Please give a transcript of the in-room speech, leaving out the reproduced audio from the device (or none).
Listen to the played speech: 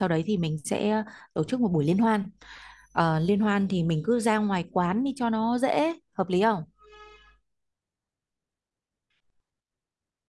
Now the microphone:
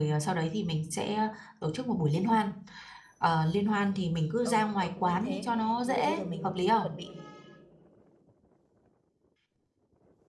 Ừ, tôi cũng nghĩ thế. Thế thì bây giờ mình cứ chuẩn bị,